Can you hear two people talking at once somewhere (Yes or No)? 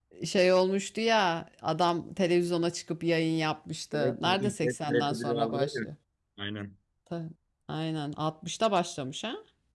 Yes